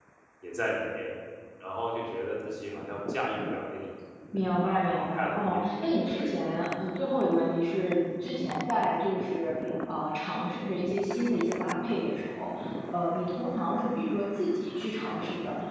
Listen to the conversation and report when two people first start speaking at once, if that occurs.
4.6 s

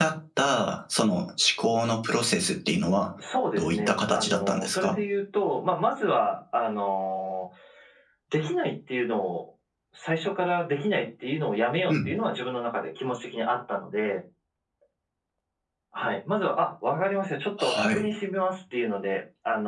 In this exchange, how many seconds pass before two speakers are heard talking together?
3.6 s

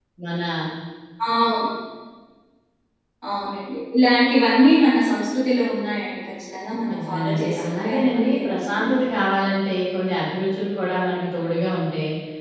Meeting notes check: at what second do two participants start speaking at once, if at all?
6.9 s

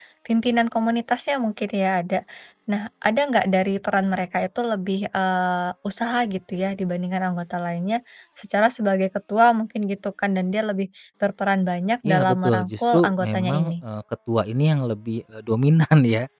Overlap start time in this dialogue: 12.0 s

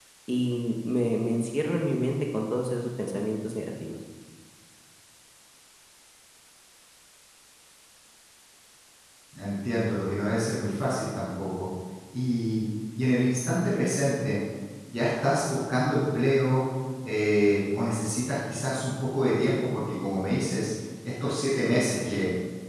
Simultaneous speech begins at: none

